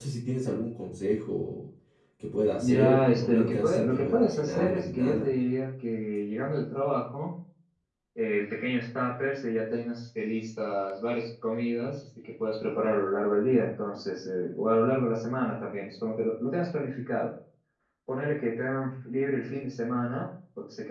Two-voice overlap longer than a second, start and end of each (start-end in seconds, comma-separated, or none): 2.6-5.3